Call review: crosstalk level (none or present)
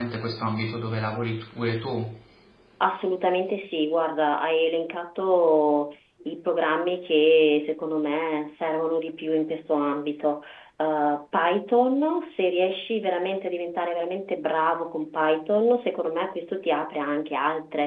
none